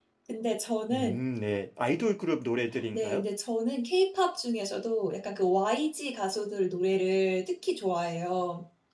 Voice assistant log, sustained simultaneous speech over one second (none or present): none